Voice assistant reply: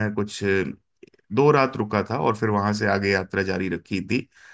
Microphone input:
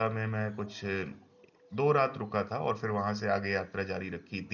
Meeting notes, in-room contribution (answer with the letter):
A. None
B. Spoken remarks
A